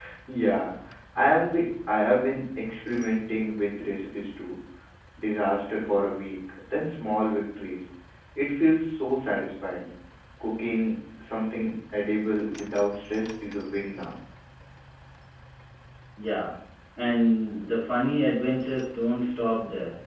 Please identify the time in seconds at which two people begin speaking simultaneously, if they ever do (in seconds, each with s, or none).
none